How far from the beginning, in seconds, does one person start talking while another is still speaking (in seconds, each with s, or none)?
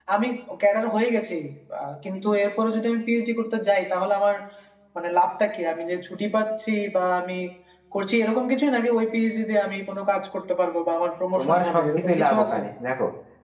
11.3 s